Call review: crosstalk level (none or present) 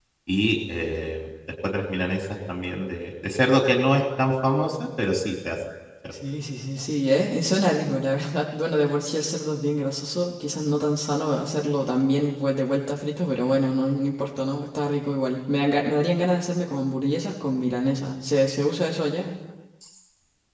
none